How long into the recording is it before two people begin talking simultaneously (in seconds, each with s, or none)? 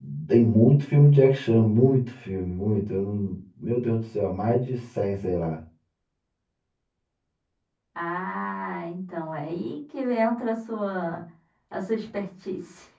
none